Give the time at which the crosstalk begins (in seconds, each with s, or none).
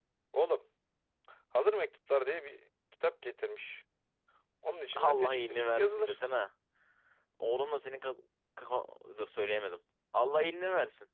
4.9 s